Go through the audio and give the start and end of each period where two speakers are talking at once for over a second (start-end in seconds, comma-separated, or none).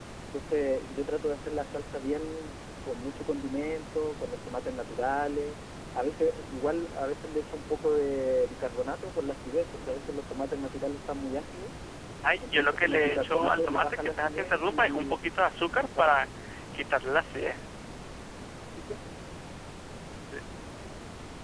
12.4-15.2